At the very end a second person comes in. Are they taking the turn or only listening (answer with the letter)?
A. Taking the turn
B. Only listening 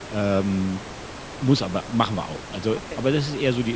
B